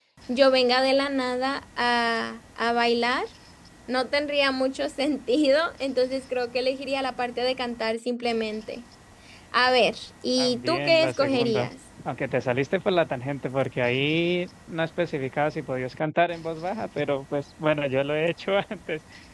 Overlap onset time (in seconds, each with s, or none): 10.4 s